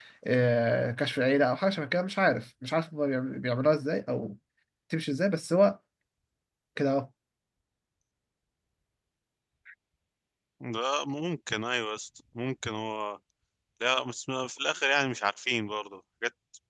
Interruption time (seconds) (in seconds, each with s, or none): none